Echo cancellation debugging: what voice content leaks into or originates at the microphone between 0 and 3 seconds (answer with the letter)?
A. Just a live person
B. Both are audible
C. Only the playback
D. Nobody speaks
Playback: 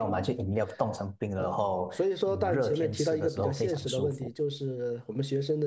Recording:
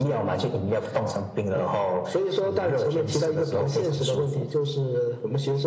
C